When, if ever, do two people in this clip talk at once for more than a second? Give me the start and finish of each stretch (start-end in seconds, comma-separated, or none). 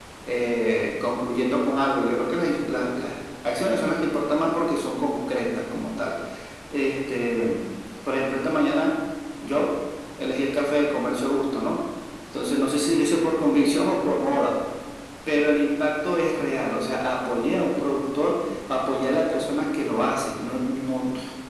none